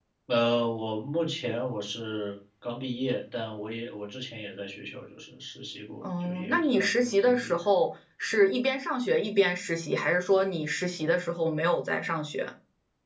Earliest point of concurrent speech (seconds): 6.0 s

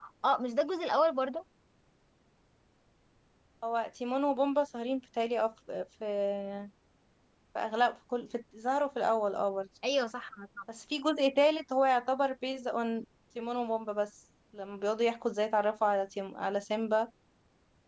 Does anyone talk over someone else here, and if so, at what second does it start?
none

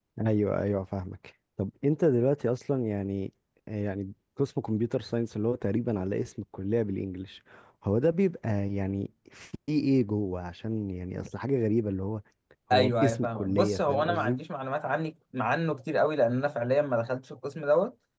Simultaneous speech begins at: 12.7 s

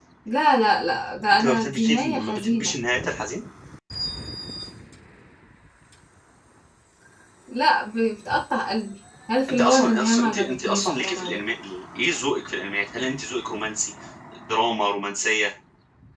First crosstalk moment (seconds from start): 1.3 s

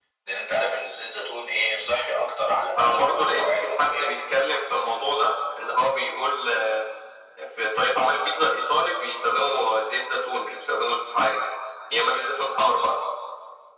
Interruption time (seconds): 2.8 s

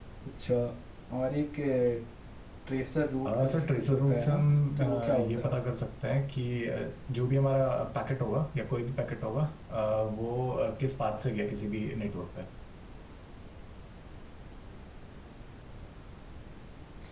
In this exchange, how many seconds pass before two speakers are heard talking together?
3.3 s

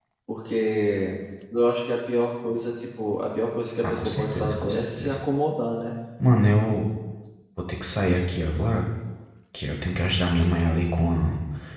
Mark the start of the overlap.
3.8 s

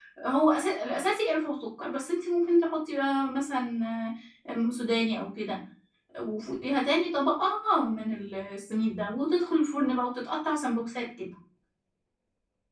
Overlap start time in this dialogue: none

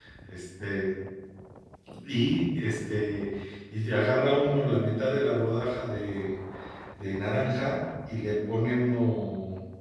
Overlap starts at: none

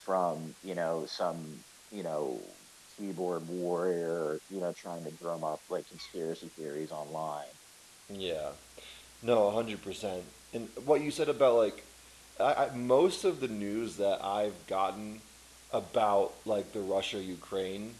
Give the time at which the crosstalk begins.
none

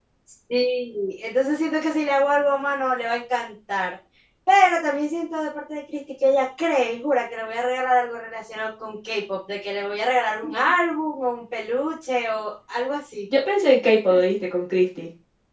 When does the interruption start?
none

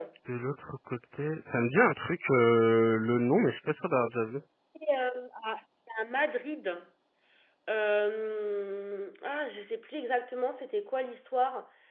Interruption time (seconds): none

